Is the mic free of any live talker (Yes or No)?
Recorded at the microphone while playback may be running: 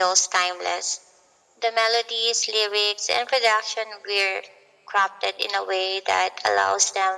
Yes